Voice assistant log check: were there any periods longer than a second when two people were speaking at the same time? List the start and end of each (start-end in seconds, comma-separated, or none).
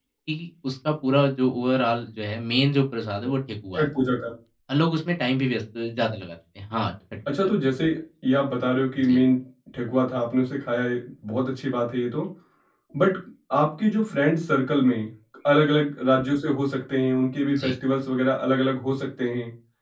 none